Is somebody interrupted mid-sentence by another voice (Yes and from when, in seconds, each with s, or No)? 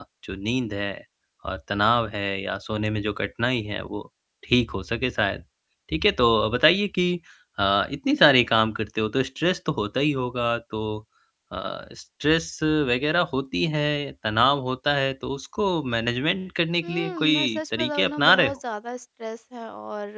Yes, from 16.8 s